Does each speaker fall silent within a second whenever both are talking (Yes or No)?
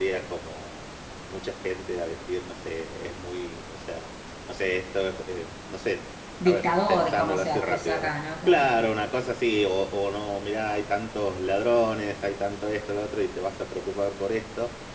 No